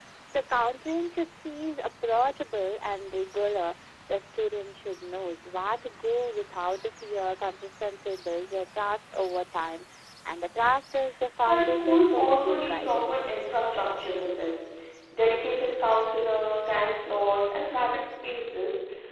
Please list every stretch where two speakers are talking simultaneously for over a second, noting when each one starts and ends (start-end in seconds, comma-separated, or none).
11.4-13.3